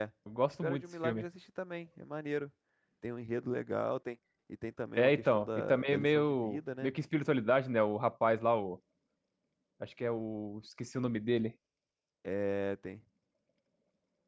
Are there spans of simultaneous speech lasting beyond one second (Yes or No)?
Yes